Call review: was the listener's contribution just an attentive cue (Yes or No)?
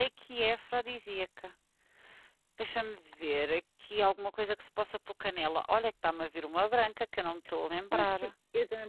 No